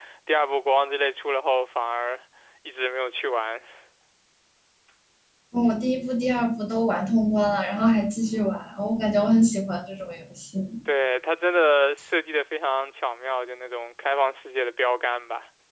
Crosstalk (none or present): none